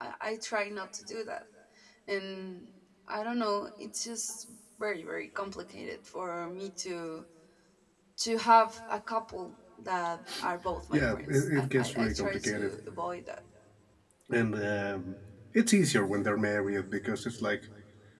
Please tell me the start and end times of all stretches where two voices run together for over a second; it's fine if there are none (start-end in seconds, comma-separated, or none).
10.9-12.8